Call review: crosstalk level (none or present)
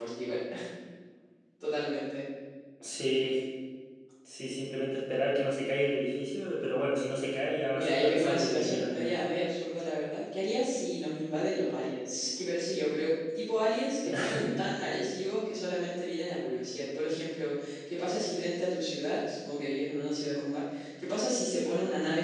present